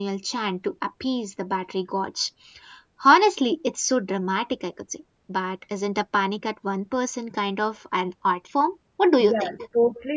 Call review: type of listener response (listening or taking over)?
taking over